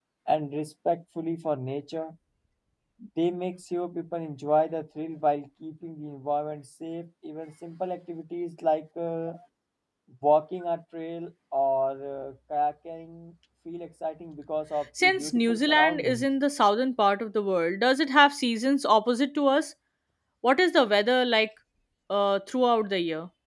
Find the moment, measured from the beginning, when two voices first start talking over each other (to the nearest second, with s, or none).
15 s